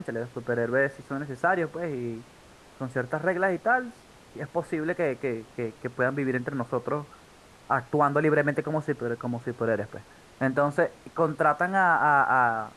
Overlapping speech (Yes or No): No